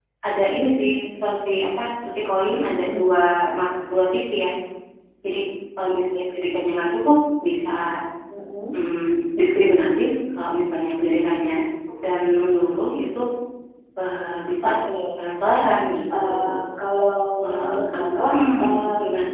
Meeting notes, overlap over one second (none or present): present